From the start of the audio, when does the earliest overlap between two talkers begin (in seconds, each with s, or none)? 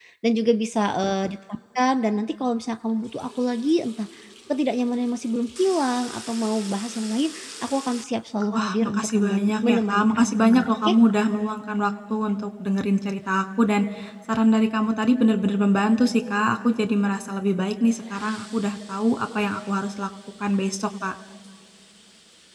8.5 s